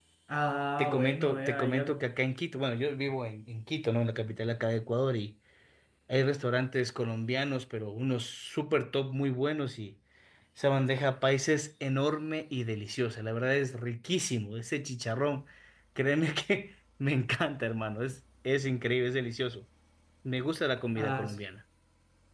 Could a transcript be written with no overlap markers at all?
No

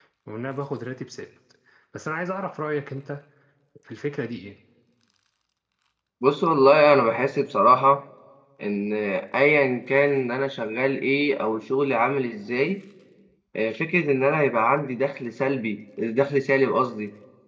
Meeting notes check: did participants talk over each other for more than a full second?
No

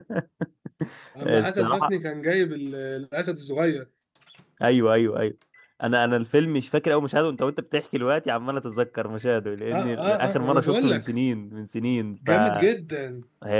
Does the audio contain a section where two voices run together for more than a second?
Yes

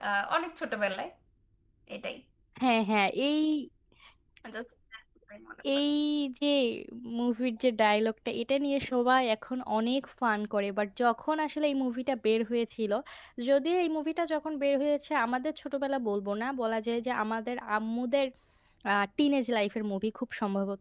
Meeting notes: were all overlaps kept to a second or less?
Yes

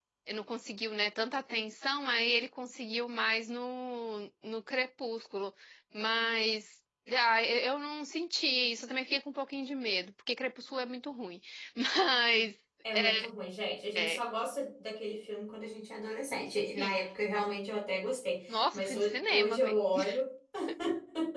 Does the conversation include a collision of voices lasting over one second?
Yes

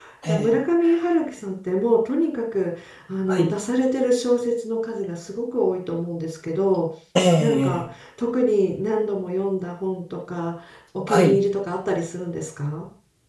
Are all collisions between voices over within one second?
Yes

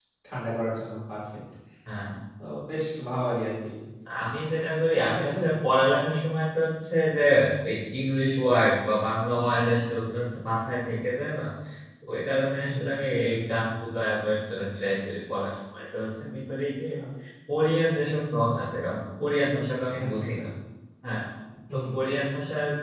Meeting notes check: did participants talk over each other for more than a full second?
No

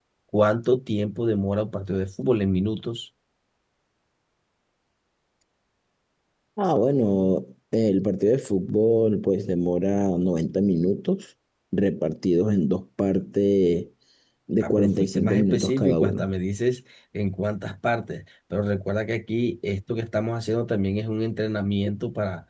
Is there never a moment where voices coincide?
No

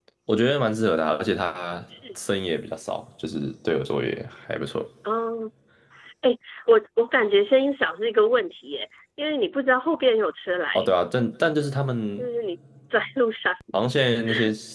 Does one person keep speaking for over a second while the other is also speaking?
No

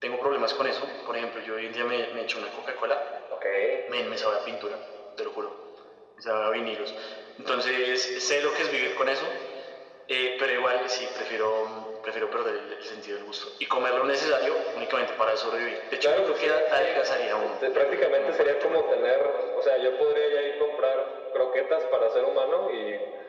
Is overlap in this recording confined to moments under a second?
No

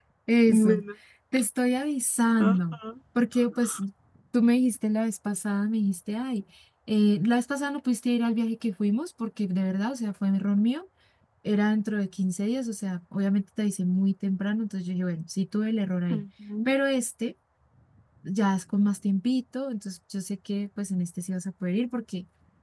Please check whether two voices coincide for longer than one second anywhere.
No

